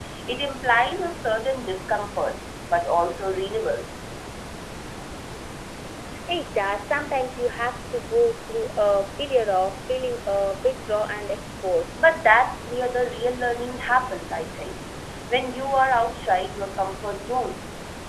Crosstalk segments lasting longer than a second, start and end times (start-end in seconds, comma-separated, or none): none